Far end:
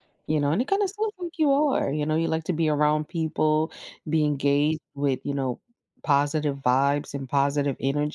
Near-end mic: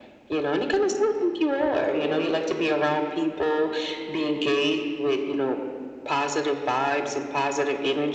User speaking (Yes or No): No